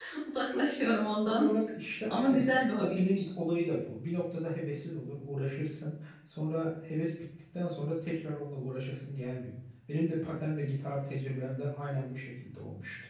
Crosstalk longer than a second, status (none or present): present